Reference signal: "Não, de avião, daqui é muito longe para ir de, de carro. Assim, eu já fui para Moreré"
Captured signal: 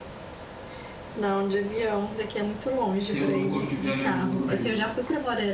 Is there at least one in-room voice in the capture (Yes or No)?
Yes